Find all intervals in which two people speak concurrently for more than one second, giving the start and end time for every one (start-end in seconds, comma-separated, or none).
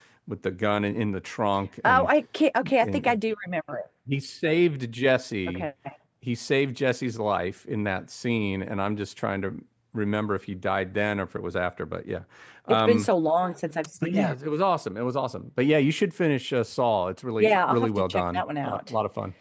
17.4-18.9